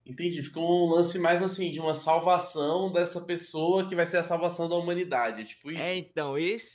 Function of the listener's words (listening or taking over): taking over